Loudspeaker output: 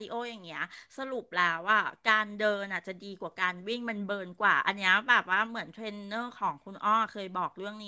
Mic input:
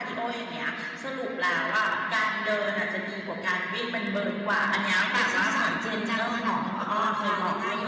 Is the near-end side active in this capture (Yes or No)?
Yes